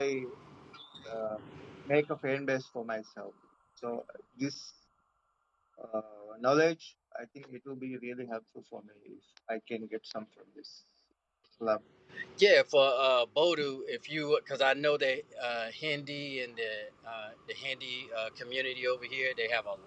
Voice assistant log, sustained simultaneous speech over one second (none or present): none